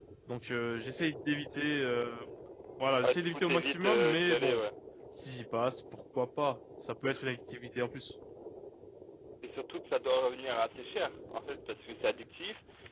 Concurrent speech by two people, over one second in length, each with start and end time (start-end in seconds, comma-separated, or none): 3.0-4.6